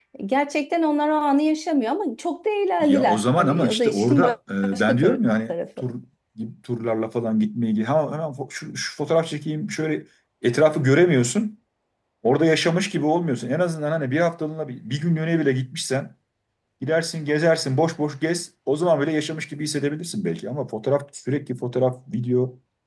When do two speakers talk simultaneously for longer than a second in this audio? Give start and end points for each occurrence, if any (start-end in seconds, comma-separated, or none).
2.8-4.2